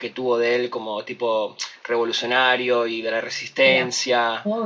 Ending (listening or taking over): taking over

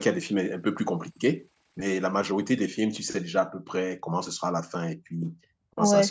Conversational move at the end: taking over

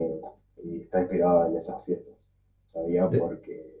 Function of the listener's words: listening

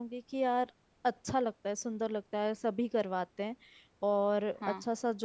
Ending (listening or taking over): listening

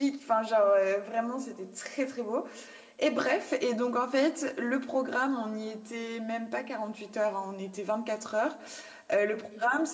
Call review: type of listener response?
listening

